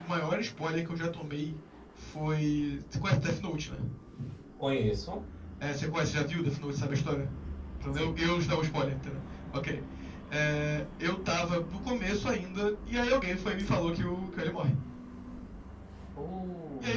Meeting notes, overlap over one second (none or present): none